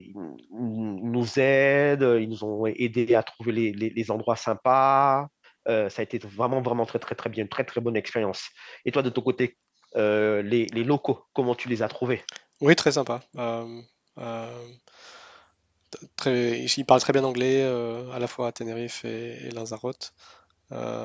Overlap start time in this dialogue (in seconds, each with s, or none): none